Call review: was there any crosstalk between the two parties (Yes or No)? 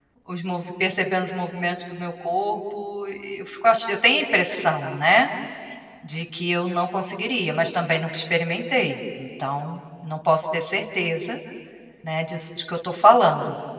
No